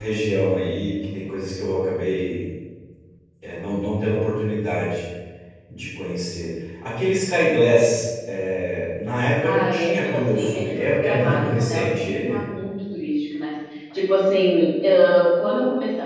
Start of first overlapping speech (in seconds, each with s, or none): 9.4 s